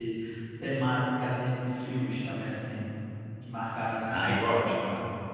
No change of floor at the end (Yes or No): No